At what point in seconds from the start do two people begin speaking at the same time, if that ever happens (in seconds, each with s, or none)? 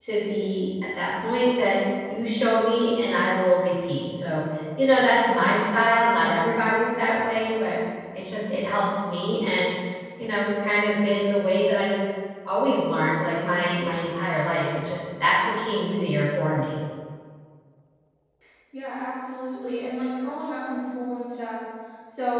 none